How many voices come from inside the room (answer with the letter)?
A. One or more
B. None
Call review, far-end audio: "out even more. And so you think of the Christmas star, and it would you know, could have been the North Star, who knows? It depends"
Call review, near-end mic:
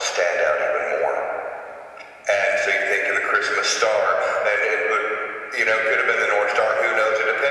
B